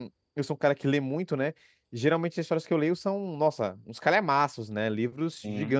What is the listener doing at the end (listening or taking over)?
listening